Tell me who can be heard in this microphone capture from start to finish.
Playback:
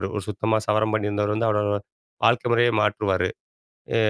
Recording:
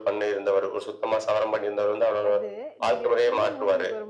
both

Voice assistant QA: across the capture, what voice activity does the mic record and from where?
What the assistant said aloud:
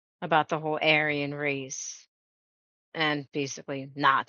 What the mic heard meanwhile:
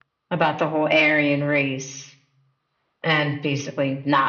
echo only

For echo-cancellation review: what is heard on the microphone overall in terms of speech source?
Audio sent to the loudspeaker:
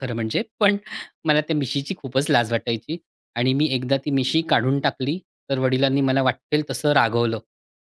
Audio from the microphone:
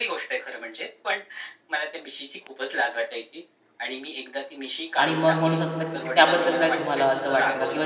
both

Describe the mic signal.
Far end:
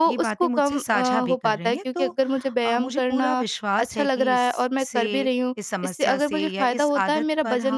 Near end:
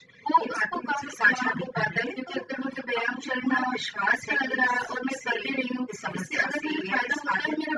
echo only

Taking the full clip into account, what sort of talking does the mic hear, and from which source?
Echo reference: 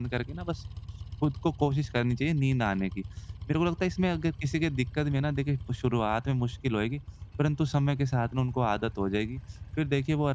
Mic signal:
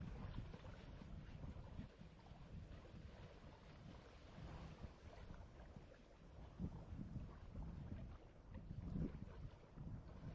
neither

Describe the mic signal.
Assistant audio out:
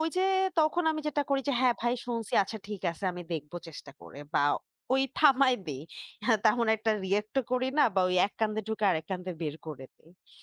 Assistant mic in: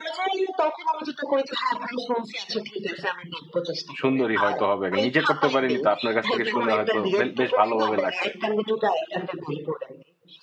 both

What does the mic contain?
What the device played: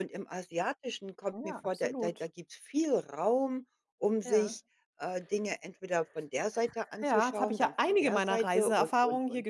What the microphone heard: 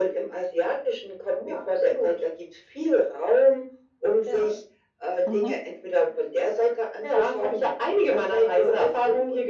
both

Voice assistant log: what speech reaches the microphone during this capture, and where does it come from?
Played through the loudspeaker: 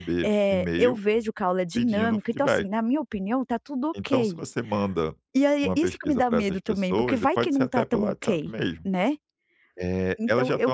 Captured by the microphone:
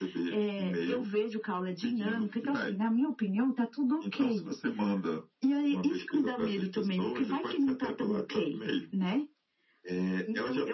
echo only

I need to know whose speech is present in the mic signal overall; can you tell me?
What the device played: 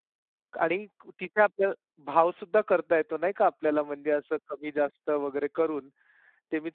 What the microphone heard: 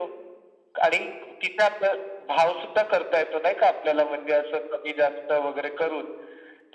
echo only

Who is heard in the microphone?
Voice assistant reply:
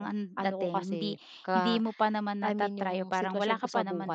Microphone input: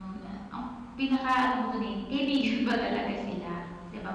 user only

